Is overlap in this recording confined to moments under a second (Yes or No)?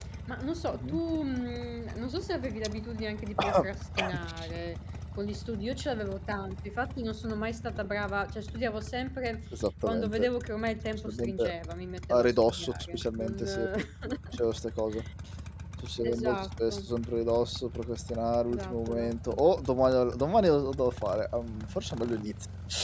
No